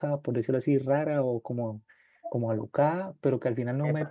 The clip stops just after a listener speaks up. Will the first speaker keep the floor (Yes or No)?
Yes